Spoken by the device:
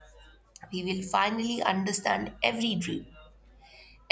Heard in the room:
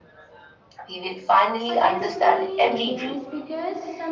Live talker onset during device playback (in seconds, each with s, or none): 1.6 s